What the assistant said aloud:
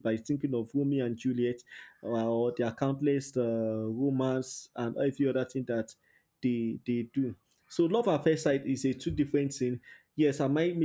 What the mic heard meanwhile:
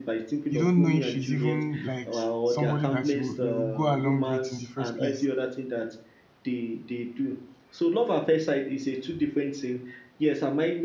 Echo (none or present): present